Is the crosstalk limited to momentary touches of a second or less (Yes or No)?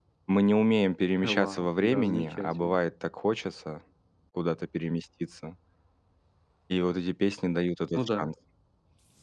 No